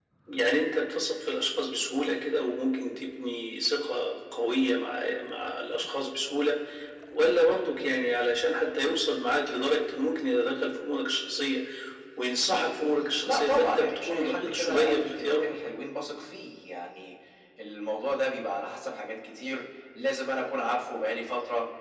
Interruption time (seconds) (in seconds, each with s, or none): 13.2 s